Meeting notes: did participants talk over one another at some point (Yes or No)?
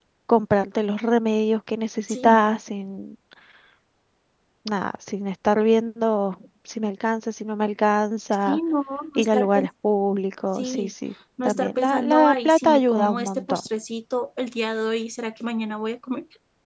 Yes